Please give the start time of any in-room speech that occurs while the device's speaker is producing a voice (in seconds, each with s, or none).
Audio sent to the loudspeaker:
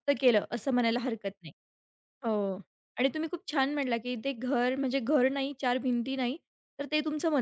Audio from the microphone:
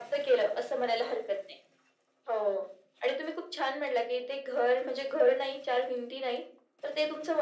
none